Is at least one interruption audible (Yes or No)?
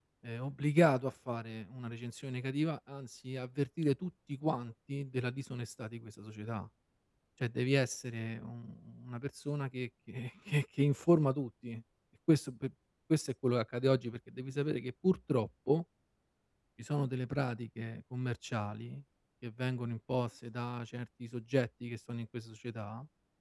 No